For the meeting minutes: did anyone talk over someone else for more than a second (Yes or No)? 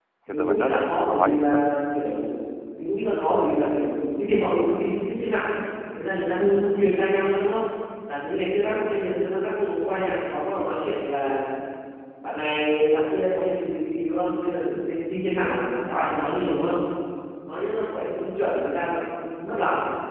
Yes